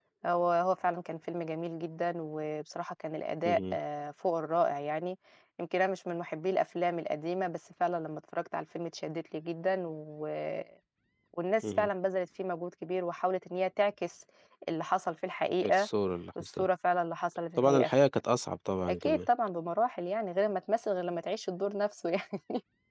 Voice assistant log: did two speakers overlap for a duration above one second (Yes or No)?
No